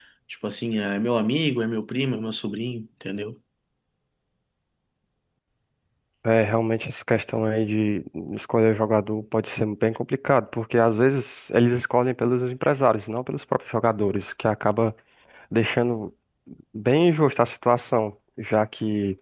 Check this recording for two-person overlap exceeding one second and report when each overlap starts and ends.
none

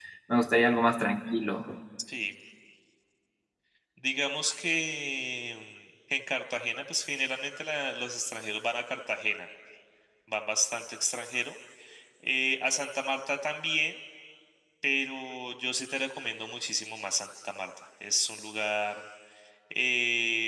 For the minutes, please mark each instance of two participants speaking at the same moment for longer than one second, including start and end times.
none

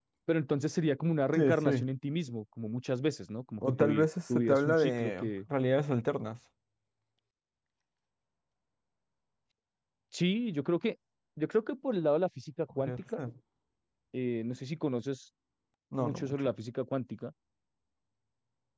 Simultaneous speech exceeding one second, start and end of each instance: 3.8-5.3

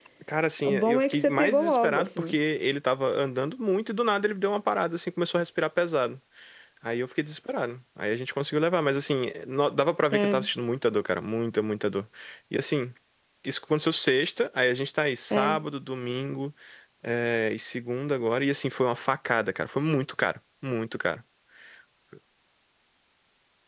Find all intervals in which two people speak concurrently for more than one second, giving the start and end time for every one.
0.6-2.4

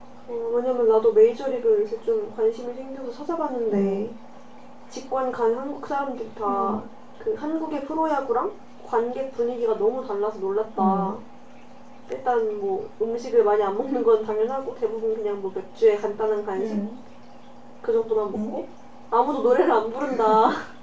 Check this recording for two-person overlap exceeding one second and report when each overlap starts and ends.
none

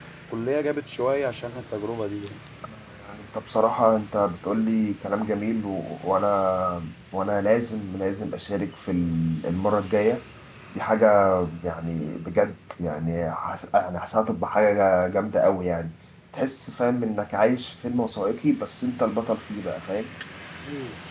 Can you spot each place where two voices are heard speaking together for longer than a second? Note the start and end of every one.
none

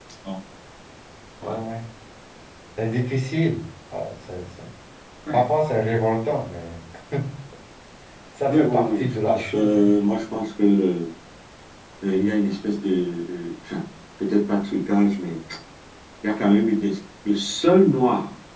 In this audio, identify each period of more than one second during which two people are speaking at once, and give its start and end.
8.5-9.8

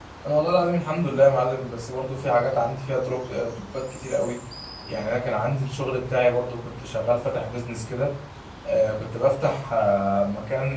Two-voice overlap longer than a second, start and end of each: none

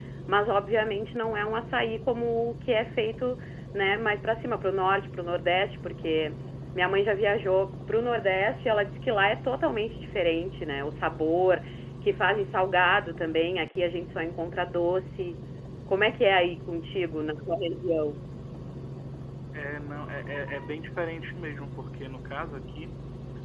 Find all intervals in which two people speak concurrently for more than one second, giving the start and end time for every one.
none

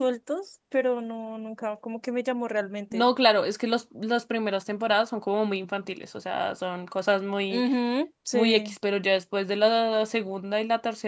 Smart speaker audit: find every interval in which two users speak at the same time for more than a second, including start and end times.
none

